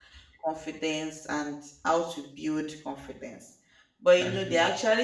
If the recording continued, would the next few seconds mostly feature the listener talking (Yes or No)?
No